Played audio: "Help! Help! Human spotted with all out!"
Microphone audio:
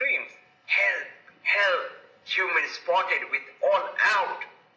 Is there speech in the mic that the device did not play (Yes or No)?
No